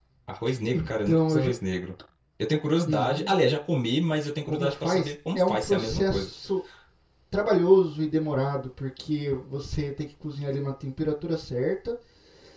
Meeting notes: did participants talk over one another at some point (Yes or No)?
Yes